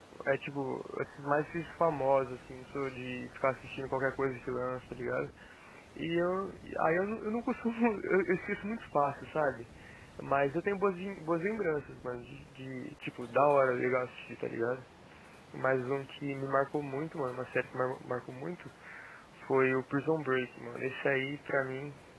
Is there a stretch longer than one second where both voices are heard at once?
No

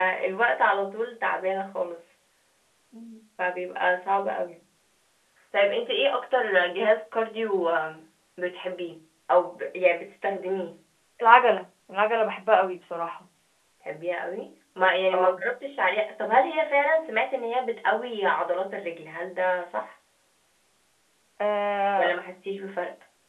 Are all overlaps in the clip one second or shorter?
Yes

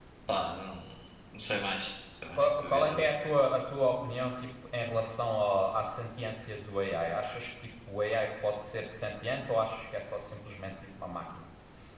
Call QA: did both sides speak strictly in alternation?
No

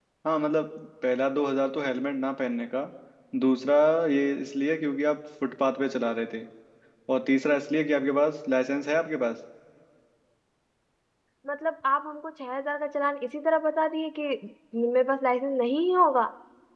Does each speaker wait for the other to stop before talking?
Yes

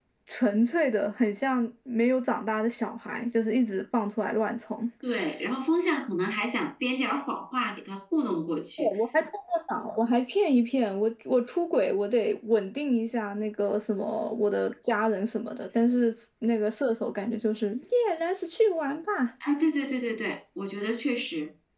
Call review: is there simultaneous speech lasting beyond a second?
No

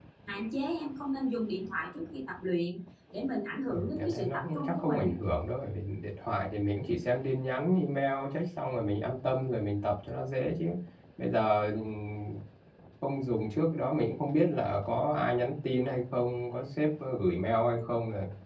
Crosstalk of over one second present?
Yes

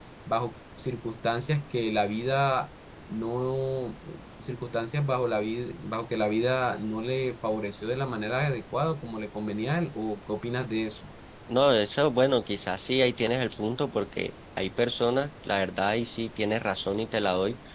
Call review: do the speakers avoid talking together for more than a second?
Yes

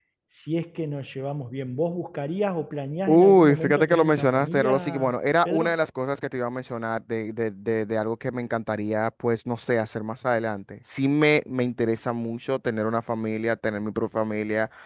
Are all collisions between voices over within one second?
No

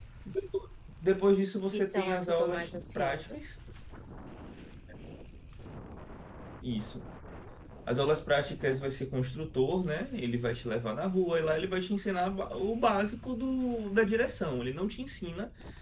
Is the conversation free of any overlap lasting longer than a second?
No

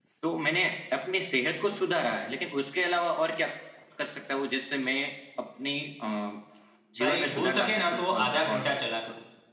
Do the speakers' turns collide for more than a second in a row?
Yes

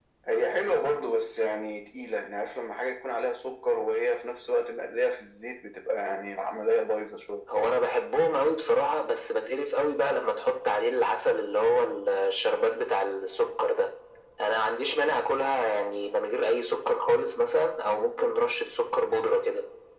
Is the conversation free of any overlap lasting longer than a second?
Yes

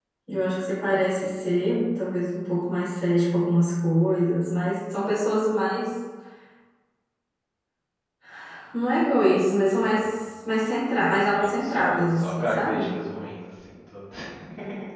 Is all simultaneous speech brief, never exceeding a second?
No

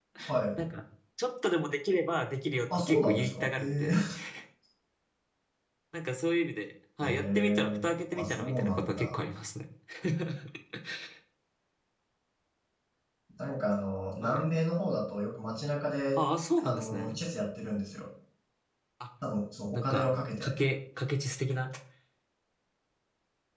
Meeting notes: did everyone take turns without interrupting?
No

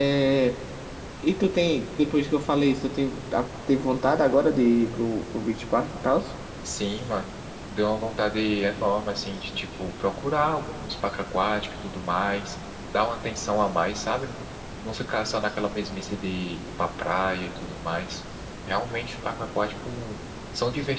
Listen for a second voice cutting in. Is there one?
No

